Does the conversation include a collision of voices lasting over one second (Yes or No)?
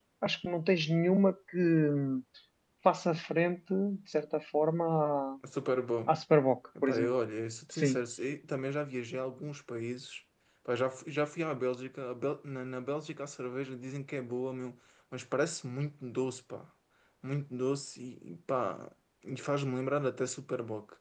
No